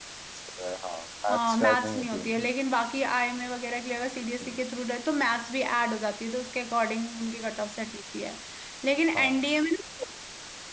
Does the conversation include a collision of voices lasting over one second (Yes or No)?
Yes